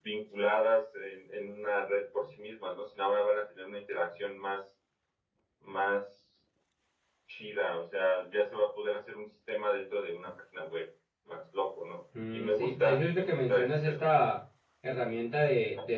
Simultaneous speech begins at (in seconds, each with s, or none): 12.1 s